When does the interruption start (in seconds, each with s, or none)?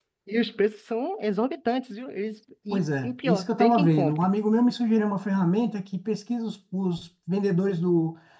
2.7 s